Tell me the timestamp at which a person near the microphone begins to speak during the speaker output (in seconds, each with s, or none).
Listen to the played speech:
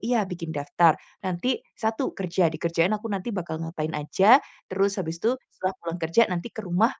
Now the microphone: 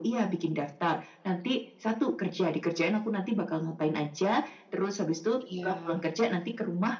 5.4 s